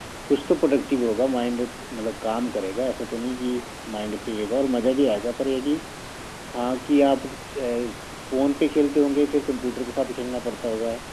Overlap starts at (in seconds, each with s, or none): none